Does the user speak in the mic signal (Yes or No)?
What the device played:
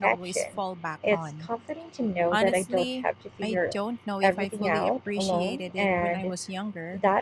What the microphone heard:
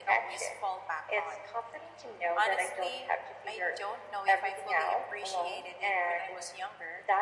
No